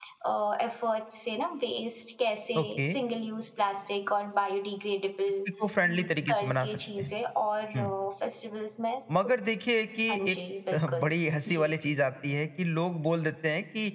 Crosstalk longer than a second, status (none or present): present